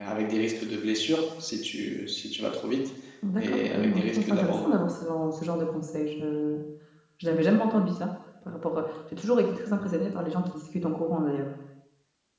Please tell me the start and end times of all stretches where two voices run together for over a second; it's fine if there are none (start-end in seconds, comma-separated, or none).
3.4-4.7